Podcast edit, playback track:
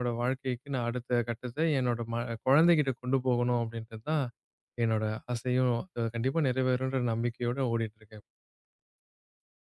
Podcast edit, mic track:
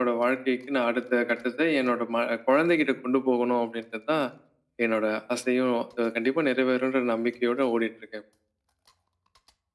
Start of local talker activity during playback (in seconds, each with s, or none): none